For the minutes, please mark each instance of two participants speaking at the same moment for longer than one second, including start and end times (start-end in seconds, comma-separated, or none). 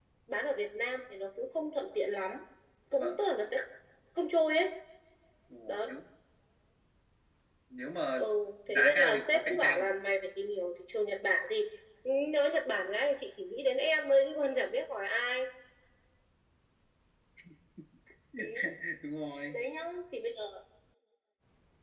8.7-10.0